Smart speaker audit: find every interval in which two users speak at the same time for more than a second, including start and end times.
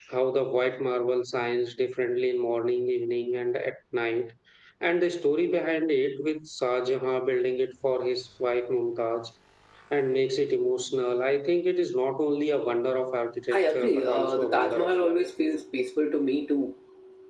13.5-15.2

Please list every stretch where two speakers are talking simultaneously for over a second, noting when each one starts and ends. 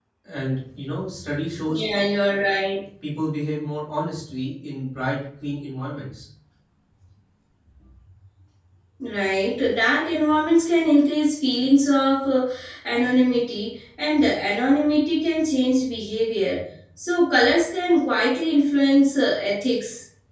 none

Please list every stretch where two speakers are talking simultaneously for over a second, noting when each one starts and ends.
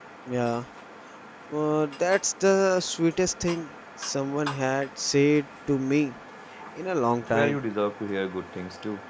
none

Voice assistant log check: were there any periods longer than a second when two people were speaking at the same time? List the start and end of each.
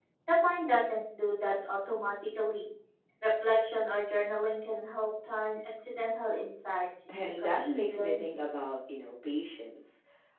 7.1-8.4

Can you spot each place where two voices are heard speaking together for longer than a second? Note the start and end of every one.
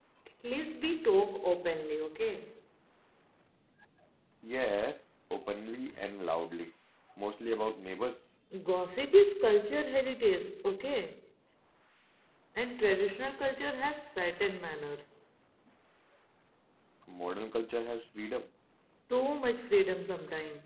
none

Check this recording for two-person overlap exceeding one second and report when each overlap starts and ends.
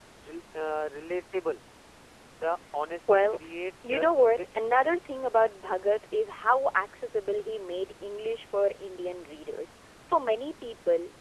3.9-5.1

